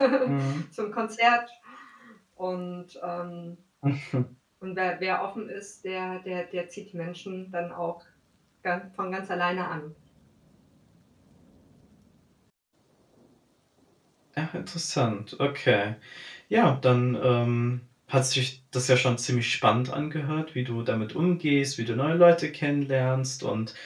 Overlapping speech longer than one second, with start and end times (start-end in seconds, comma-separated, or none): none